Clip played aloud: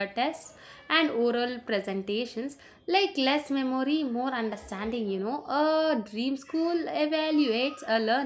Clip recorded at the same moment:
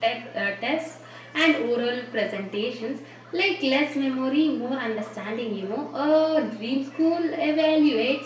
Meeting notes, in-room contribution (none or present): none